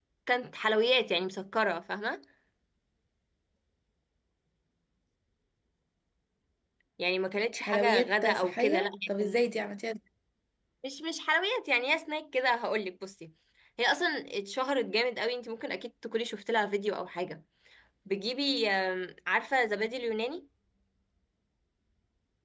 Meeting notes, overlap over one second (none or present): present